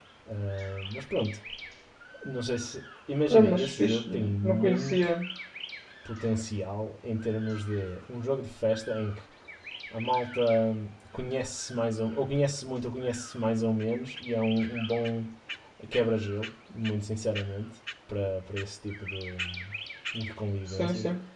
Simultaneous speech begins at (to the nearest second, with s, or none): 3 s